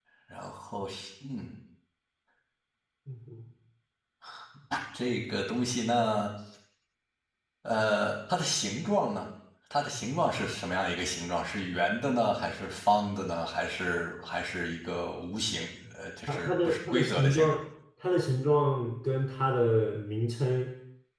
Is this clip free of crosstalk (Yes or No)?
No